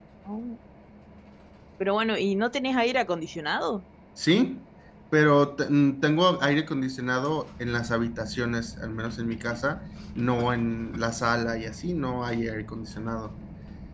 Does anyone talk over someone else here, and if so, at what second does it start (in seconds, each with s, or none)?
none